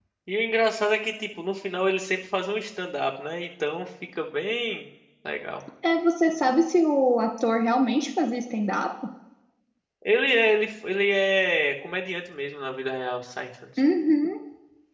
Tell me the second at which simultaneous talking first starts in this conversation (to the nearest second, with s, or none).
none